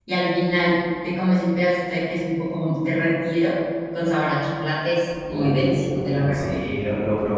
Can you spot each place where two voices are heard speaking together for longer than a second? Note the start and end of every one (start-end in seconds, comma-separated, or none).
5.3-6.7